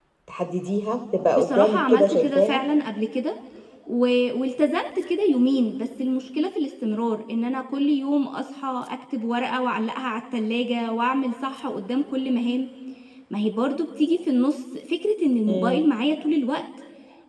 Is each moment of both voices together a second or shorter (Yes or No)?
No